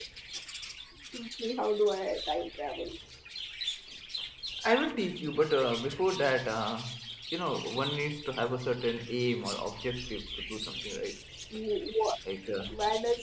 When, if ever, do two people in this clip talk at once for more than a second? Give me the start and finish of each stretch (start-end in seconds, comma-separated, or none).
none